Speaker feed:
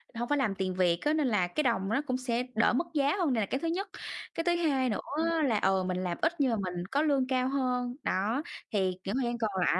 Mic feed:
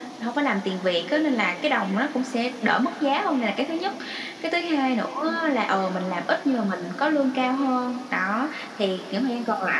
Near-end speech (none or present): none